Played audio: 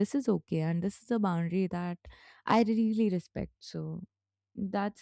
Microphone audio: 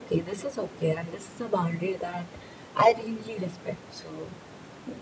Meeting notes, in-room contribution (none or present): none